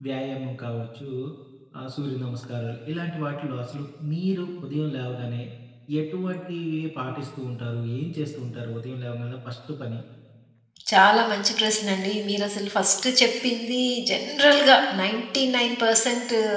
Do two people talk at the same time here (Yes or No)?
No